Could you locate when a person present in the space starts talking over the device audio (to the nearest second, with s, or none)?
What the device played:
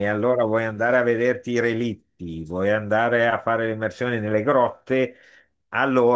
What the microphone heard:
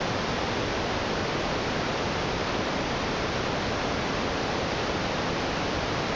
none